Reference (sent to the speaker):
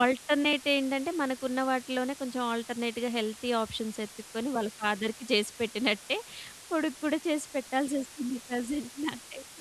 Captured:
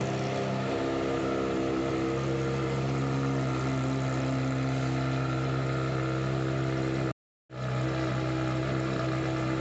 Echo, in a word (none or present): none